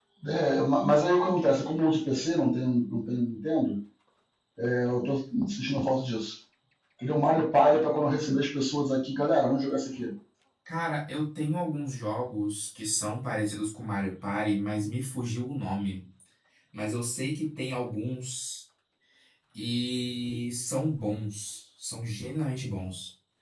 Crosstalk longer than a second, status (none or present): none